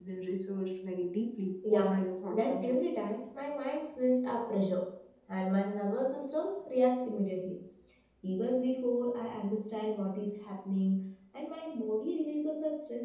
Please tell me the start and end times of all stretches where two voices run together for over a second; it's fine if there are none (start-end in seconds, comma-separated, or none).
1.7-2.9